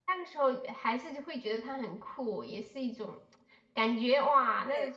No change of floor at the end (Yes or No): Yes